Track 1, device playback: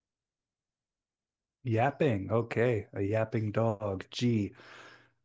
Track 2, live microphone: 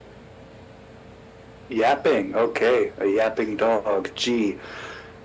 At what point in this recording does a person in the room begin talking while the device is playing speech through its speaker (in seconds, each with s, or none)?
none